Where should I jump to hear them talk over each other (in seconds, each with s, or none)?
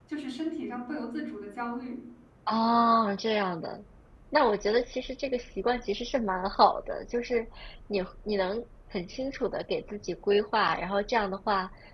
none